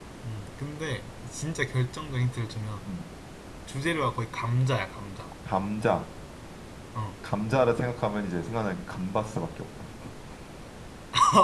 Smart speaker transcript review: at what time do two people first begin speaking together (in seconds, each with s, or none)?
none